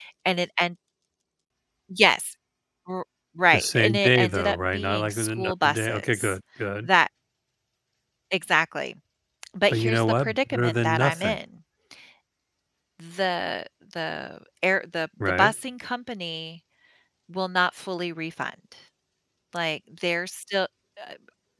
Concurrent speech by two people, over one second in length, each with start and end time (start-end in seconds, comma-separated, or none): 3.5-6.3, 9.7-11.4